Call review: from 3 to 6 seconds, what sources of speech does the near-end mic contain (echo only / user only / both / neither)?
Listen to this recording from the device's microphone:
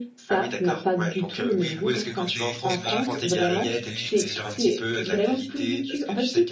both